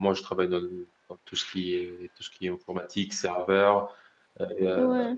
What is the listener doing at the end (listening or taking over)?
listening